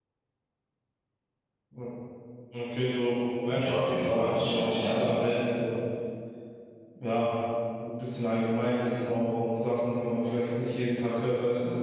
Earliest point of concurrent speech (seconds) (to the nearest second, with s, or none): 4 s